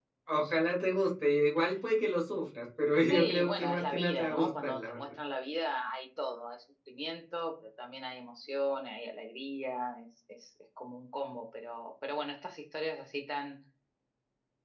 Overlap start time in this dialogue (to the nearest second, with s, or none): 3 s